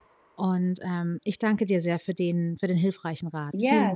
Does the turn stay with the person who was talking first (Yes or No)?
No